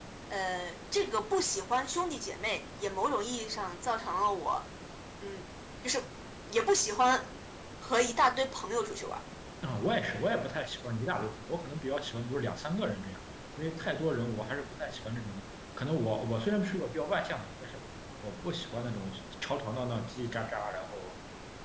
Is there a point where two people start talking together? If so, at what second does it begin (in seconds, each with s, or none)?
none